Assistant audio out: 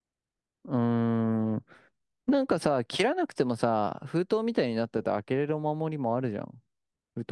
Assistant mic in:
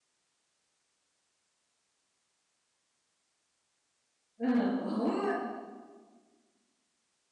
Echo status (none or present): none